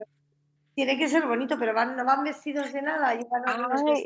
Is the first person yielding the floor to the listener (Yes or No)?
Yes